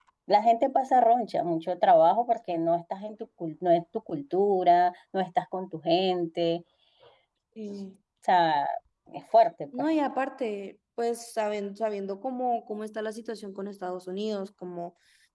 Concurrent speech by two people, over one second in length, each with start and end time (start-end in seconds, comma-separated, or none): none